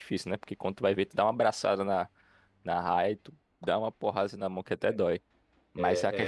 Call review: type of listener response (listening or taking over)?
listening